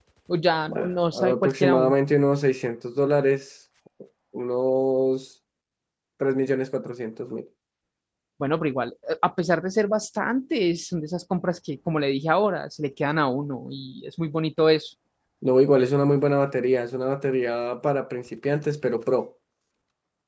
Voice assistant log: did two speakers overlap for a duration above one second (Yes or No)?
Yes